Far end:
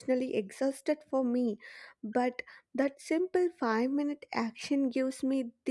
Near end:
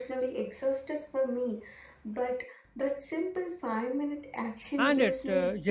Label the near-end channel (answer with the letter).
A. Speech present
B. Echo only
A